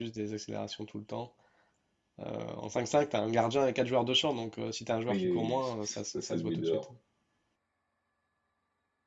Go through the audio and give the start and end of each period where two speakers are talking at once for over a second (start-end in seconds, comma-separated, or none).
5.1-6.8